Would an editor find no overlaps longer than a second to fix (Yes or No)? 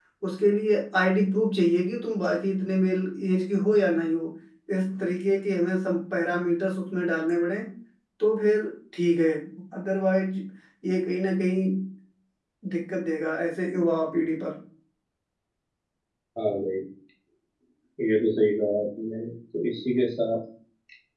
Yes